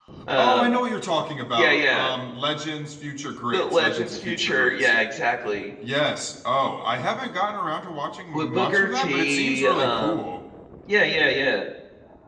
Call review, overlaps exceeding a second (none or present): present